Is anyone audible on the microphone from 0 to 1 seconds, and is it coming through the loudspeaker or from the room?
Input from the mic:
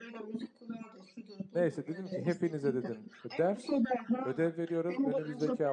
echo only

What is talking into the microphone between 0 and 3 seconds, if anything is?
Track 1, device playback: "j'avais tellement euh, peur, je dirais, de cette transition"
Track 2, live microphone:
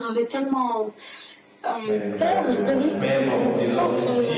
both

